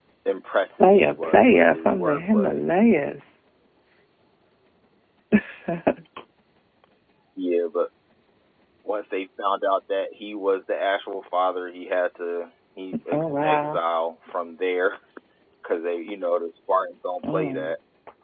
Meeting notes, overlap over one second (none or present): present